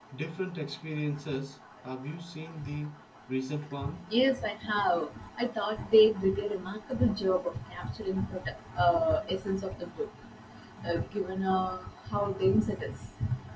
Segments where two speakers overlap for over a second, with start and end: none

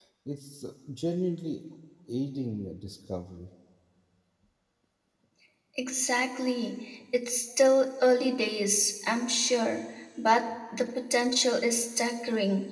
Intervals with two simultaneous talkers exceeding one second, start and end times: none

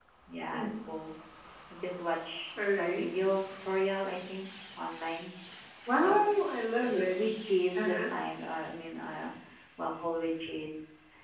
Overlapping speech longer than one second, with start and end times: none

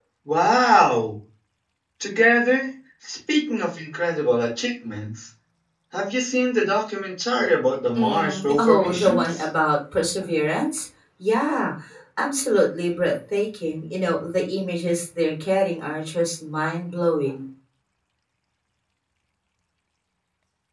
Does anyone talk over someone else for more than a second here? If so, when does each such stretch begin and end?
8.0-9.5

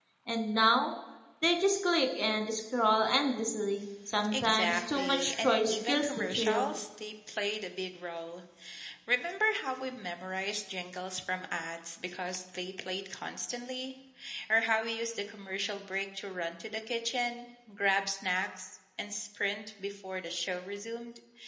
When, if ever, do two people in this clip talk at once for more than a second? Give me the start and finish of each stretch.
4.3-6.7

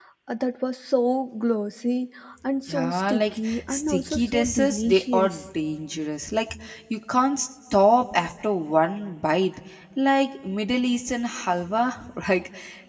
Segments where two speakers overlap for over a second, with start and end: 2.7-5.4

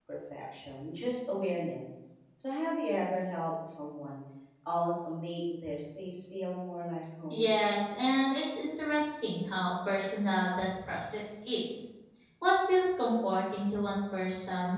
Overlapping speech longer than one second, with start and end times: none

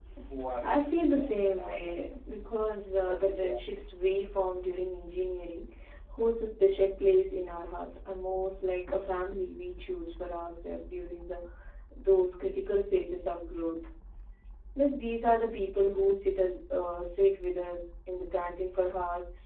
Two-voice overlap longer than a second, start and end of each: 0.6-2.0

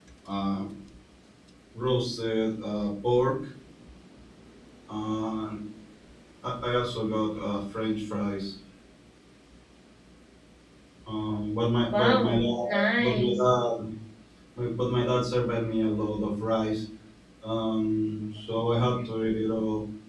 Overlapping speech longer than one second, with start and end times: 11.9-13.4

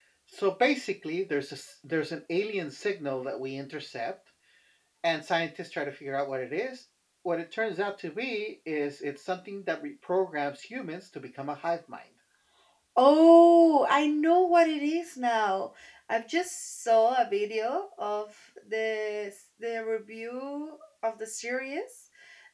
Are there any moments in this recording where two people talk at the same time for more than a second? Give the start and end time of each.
none

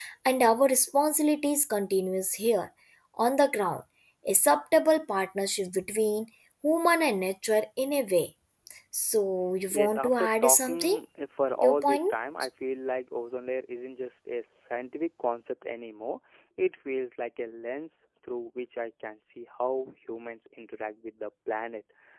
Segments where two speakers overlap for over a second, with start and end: 9.7-11.0

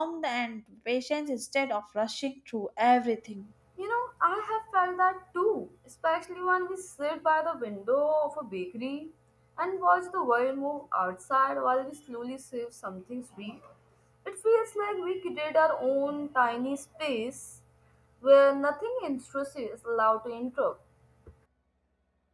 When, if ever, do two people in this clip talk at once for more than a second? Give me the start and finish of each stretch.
none

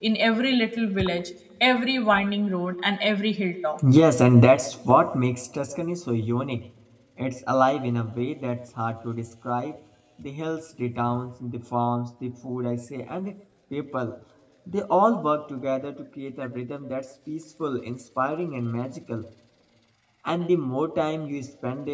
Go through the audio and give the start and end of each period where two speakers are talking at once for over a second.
none

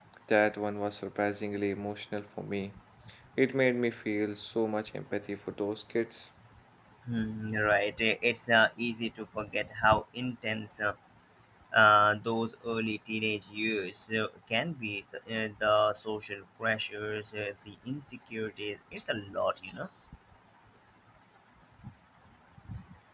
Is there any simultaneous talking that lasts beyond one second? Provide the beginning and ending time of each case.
none

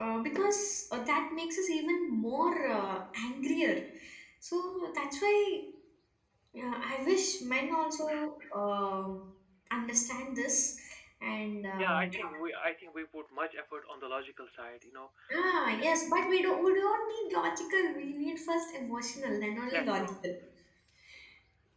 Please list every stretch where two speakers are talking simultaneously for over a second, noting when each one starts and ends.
none

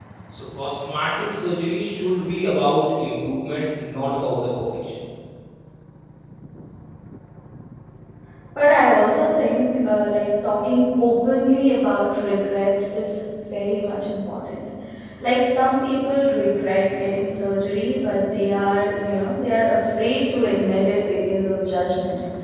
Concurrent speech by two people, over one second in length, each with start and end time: none

